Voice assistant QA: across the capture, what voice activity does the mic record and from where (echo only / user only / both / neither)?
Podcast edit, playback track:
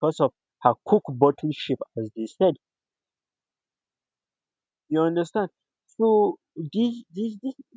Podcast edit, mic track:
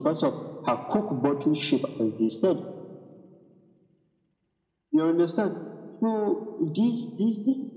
echo only